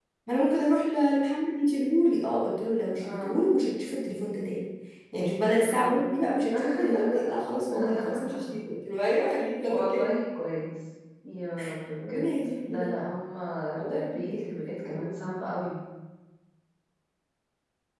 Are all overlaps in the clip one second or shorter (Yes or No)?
No